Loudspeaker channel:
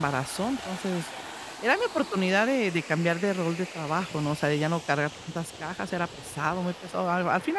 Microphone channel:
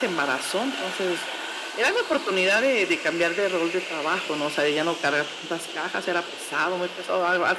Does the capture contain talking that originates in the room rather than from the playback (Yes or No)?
No